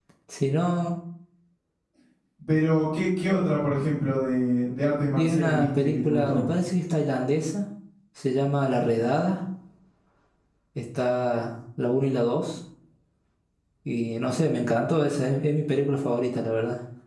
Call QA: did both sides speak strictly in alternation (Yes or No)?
No